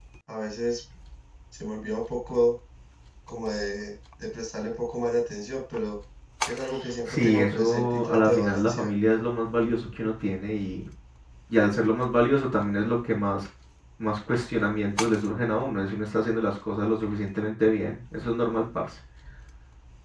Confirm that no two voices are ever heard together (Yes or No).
No